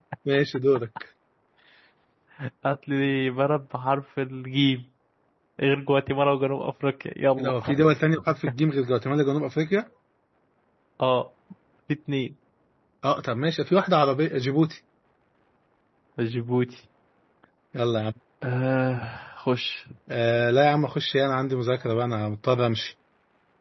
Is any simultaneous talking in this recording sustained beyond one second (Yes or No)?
No